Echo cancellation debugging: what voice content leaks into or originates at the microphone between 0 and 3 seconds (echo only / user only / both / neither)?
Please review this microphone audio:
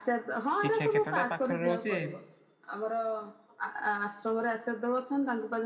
both